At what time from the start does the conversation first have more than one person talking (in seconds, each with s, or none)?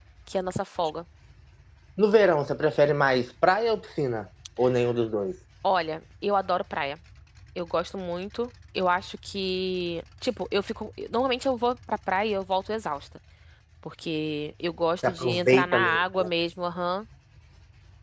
15.0 s